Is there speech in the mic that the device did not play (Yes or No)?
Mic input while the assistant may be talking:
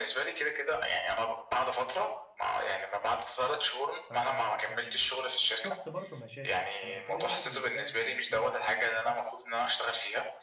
Yes